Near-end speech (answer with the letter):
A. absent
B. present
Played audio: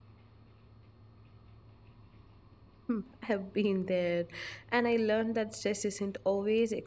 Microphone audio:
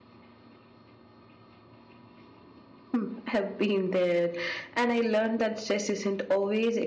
A